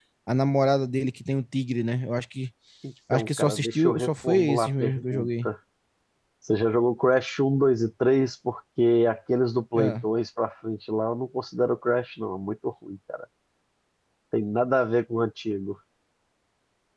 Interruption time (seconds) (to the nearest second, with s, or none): 3 s